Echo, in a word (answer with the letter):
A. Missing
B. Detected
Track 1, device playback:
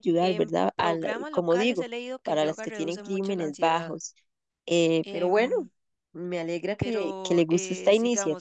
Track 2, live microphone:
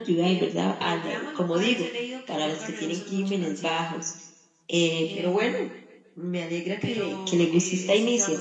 B